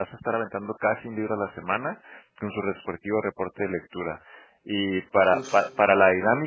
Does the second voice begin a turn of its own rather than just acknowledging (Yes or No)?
No